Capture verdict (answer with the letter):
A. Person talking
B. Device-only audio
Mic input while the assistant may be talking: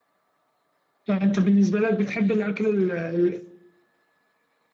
A